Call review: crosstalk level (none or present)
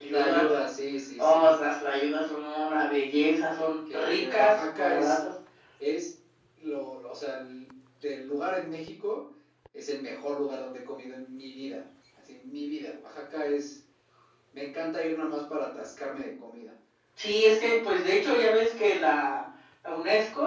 present